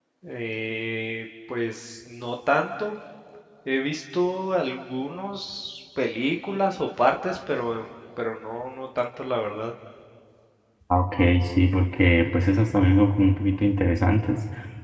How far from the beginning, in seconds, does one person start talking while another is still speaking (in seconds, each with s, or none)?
none